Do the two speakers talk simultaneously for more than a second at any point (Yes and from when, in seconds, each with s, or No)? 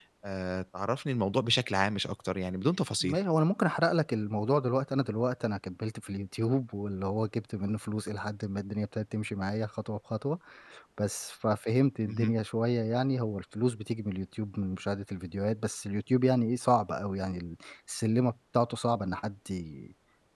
No